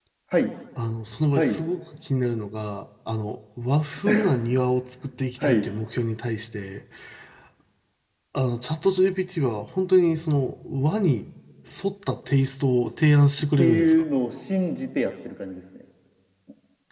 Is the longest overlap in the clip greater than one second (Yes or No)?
No